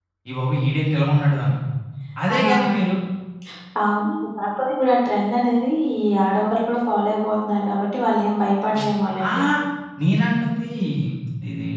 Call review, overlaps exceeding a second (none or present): none